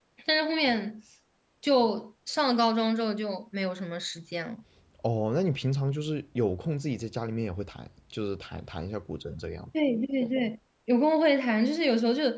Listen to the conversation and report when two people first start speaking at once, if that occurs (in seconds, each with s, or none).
none